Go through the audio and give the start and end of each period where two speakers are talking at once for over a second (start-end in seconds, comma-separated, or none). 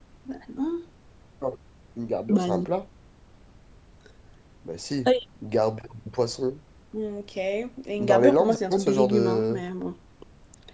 8.0-9.6